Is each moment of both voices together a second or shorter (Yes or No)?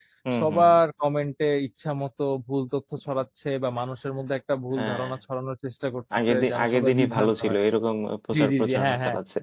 No